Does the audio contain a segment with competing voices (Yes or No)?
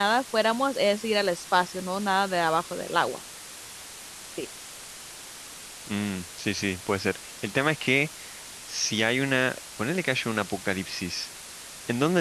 No